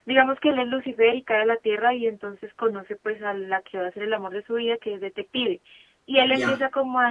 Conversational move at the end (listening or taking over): listening